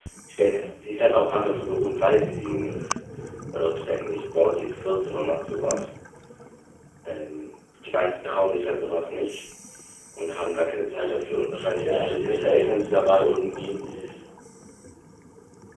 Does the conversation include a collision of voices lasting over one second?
Yes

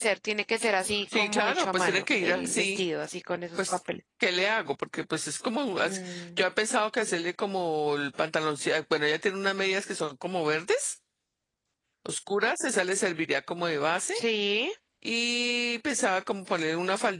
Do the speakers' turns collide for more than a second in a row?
Yes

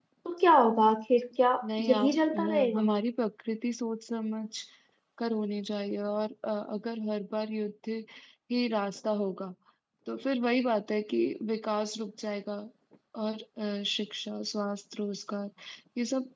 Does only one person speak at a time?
No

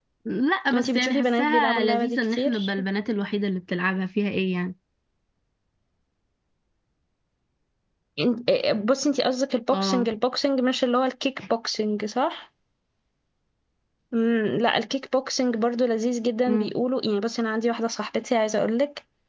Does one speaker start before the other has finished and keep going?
Yes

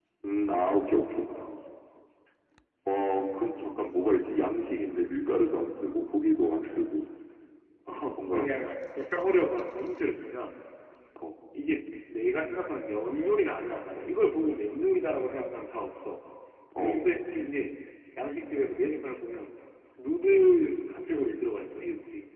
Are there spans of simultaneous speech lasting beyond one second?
No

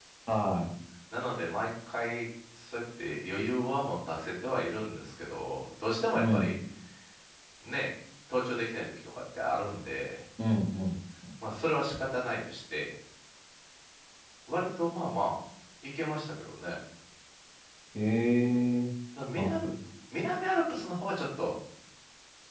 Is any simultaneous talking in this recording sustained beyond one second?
No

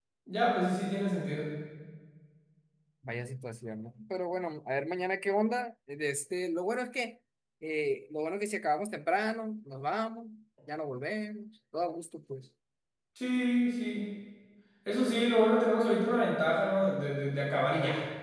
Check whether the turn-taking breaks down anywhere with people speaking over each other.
No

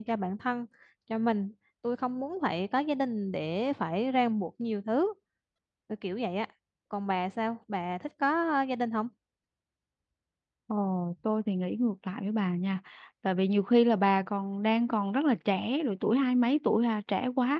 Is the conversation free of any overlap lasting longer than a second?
Yes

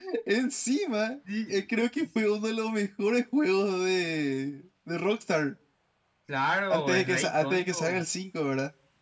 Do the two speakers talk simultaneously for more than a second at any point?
Yes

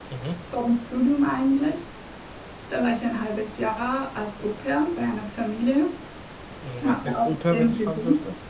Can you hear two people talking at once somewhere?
Yes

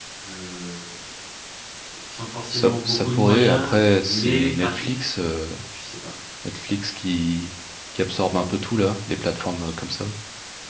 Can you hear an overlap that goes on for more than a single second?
Yes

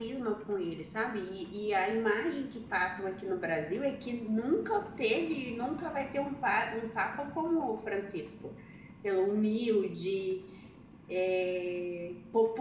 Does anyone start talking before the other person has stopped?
No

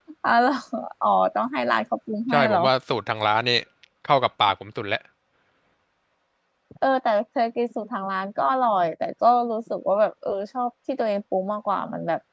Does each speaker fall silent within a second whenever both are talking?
Yes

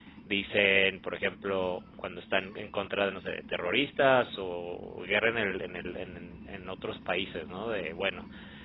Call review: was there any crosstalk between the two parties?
No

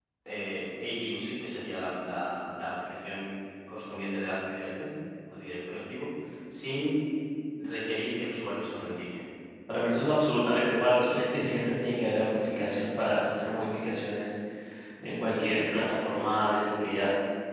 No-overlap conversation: Yes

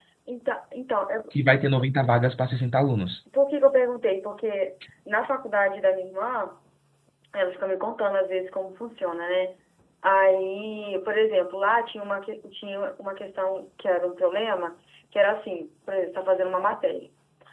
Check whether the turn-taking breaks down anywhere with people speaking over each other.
No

